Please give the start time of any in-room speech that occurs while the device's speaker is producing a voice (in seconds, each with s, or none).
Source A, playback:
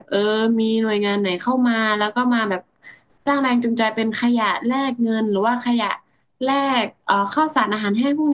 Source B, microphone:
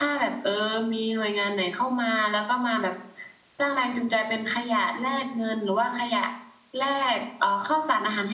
none